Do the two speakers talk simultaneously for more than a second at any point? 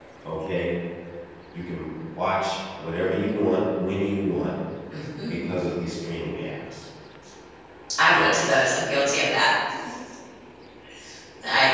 No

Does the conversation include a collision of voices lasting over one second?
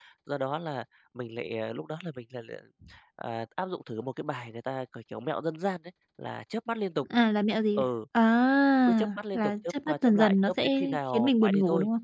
Yes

